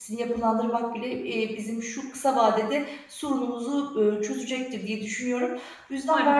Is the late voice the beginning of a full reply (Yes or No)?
No